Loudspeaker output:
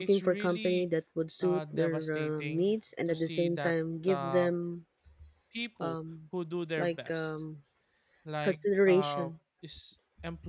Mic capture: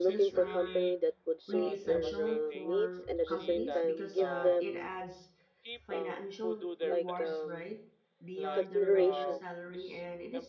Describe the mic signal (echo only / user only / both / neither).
both